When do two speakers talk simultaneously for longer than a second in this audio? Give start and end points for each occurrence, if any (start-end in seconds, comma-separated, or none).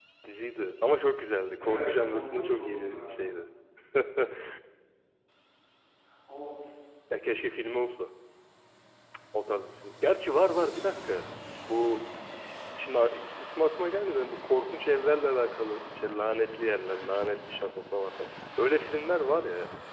1.6-3.2